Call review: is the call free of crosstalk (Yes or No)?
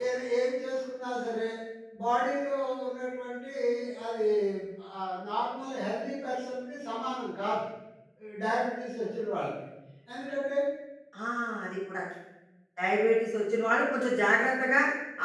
Yes